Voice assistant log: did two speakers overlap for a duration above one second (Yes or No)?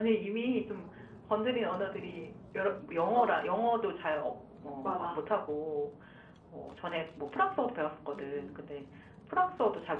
No